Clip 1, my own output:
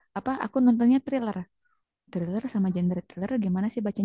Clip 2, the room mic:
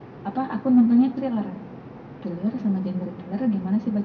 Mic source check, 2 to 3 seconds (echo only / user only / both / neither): echo only